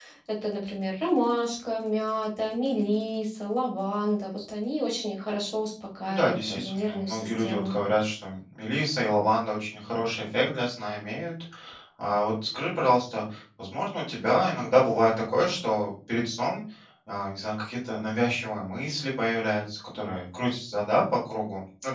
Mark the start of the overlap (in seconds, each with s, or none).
6.0 s